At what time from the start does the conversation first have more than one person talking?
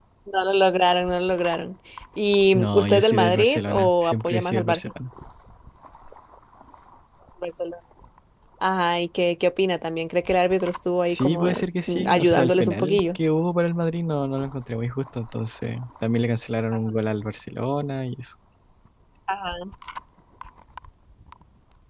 2.5 s

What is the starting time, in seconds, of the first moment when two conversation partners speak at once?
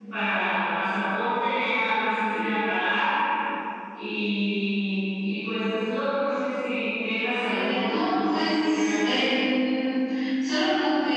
7.4 s

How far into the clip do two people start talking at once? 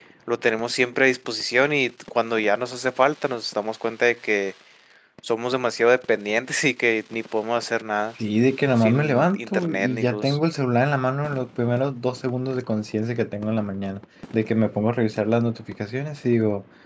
8.8 s

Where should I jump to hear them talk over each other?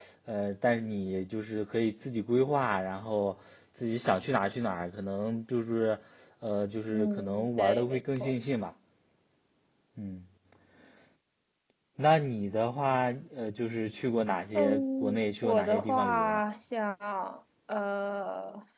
6.9 s

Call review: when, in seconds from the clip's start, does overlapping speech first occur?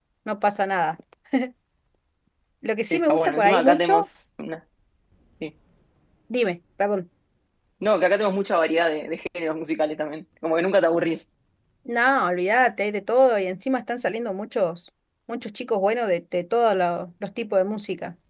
2.9 s

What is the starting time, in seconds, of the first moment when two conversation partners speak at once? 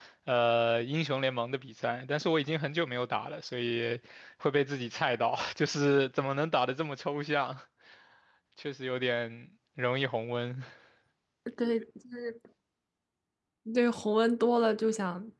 none

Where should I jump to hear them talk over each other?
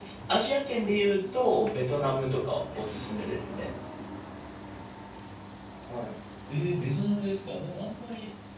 none

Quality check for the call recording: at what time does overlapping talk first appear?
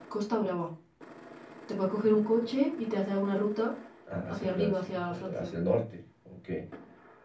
4.3 s

